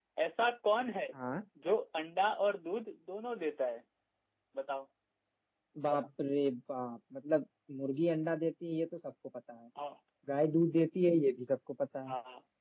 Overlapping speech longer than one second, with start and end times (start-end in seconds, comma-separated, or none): none